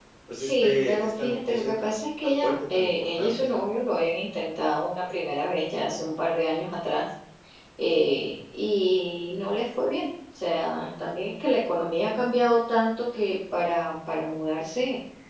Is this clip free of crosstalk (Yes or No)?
No